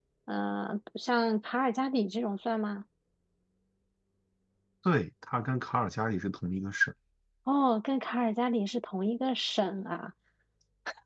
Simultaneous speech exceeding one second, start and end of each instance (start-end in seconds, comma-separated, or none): none